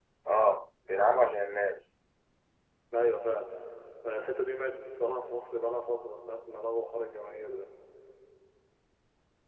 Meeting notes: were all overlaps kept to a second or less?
Yes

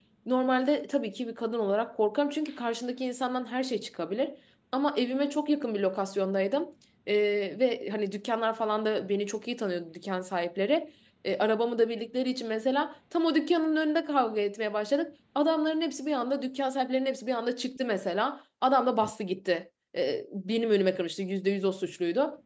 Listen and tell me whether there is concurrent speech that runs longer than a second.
No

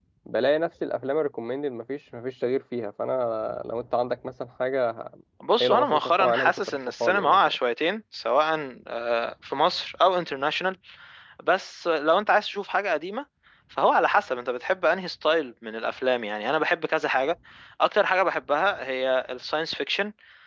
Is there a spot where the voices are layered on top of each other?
Yes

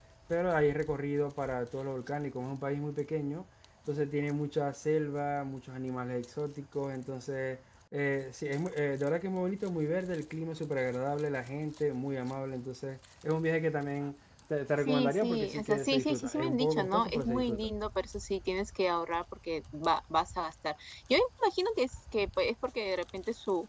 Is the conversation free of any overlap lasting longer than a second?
No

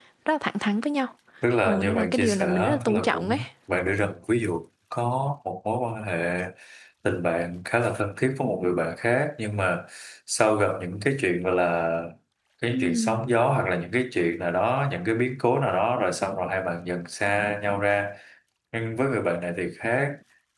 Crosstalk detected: Yes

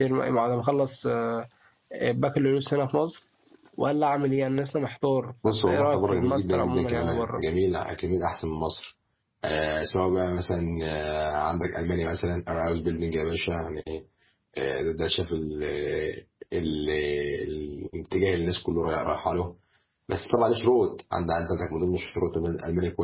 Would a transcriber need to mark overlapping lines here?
Yes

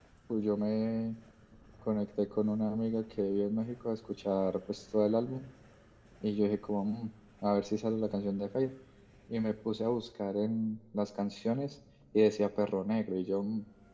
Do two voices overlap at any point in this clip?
No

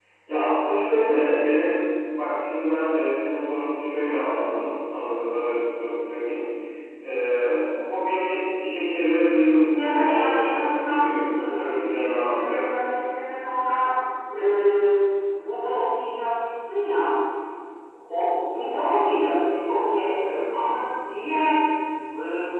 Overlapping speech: Yes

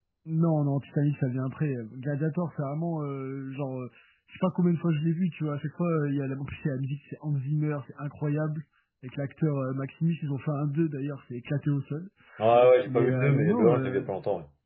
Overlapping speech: Yes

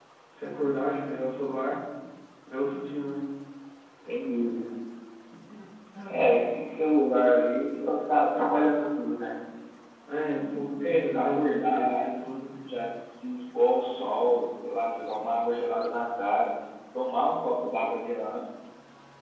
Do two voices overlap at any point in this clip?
Yes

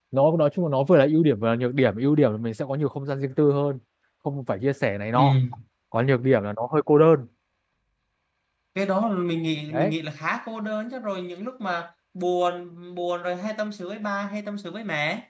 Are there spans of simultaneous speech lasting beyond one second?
No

